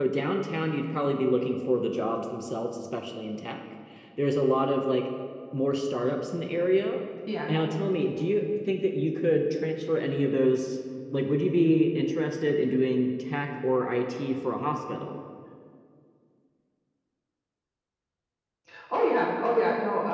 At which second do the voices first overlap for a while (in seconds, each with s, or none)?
none